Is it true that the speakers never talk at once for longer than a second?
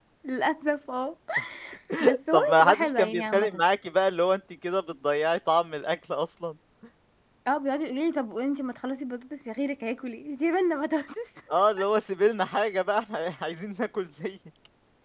No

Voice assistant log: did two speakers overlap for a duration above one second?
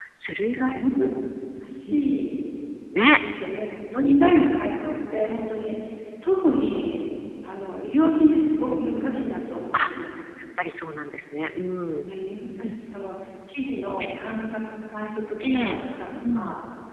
No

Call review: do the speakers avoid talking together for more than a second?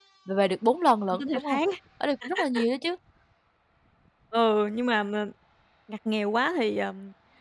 Yes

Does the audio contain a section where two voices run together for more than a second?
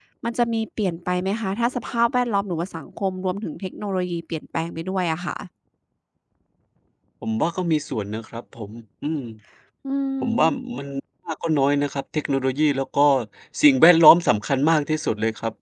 No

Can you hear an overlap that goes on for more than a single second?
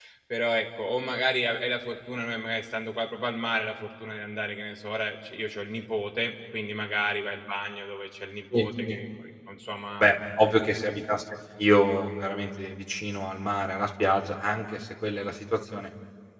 No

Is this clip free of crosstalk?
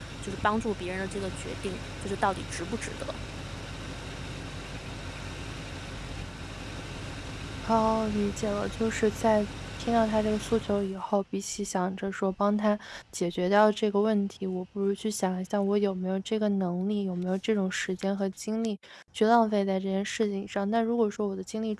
Yes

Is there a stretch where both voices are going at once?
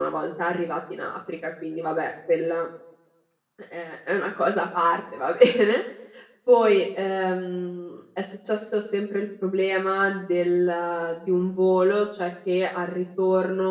No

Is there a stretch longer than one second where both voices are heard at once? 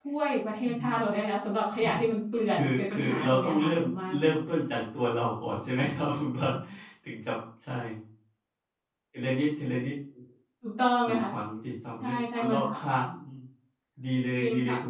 Yes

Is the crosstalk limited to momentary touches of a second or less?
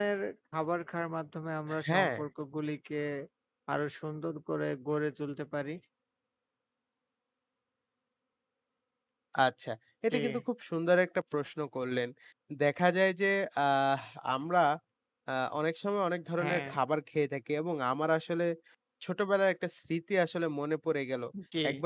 Yes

